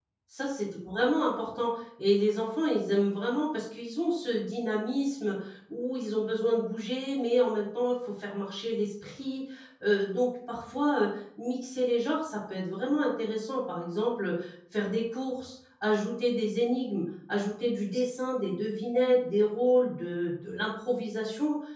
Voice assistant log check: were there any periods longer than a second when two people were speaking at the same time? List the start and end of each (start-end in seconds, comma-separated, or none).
none